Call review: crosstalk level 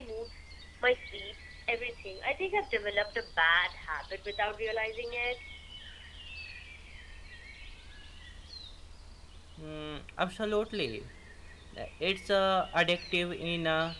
none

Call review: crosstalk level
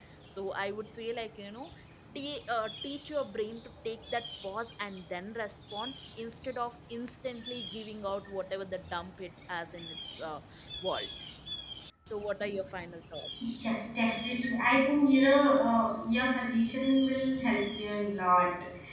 none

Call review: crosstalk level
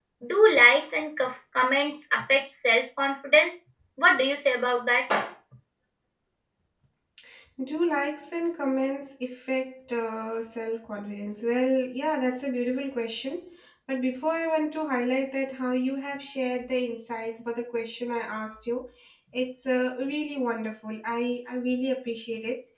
none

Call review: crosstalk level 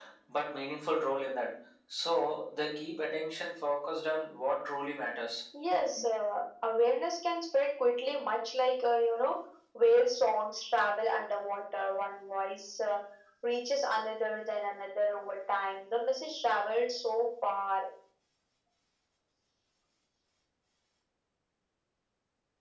none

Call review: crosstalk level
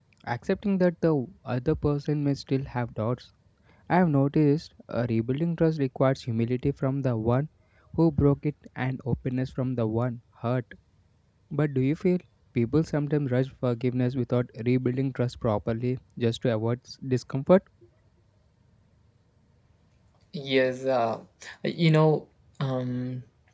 none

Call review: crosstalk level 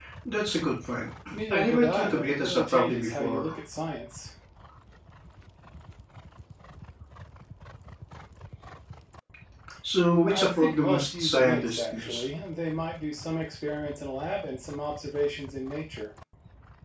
present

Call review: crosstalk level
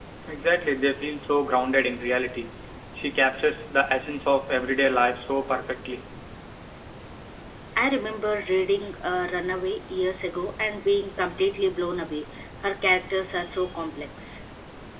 none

